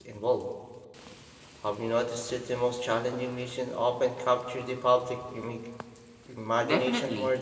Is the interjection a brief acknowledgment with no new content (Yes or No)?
No